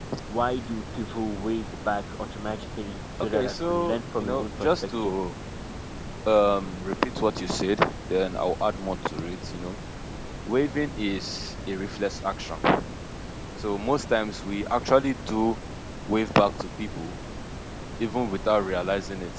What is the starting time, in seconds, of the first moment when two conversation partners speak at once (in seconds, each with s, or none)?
3.1 s